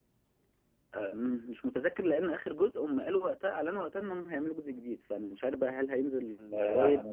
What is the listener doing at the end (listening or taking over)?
taking over